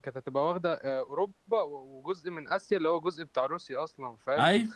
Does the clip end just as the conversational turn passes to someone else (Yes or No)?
No